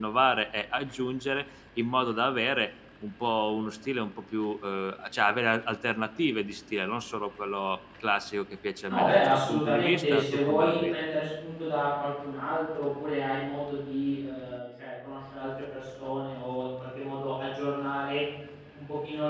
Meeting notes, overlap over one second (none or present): present